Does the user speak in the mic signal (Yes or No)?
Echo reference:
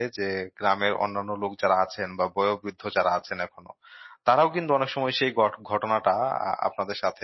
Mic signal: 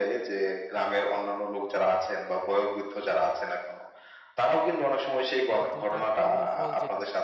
Yes